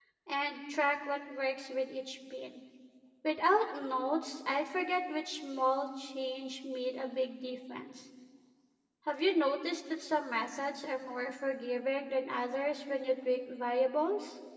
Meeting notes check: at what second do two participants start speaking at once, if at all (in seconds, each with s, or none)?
none